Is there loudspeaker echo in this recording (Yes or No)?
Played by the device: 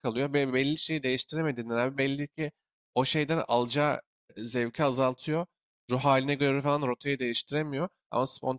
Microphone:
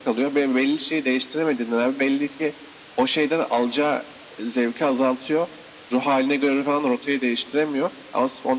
Yes